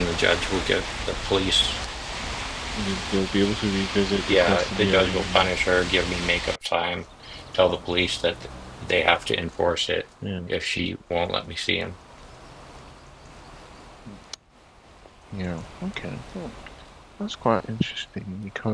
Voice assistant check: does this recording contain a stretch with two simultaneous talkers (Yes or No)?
Yes